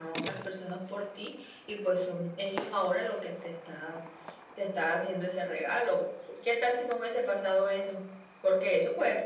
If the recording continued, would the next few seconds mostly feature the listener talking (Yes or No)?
No